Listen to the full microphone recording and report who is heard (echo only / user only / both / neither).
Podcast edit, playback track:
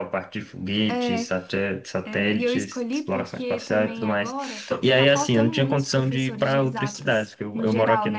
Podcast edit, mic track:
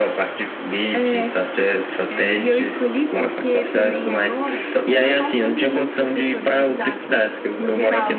echo only